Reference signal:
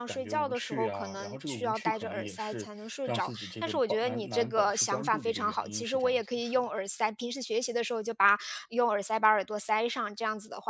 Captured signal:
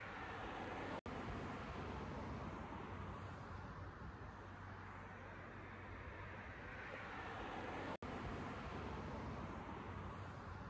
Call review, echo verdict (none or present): none